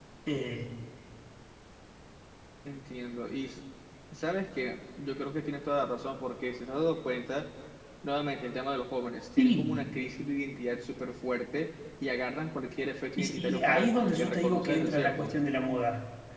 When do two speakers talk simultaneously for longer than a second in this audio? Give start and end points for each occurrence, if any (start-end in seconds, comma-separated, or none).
13.2-15.3